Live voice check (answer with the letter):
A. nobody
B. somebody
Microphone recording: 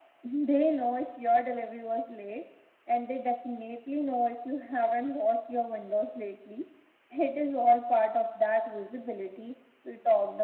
A